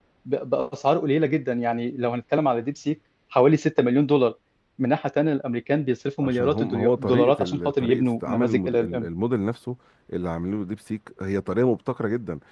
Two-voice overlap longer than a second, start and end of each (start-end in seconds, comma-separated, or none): 6.2-9.1